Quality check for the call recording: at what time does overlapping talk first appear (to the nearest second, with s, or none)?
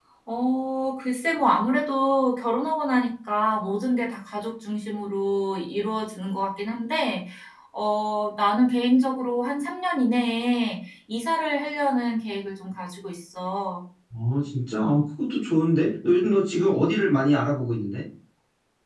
none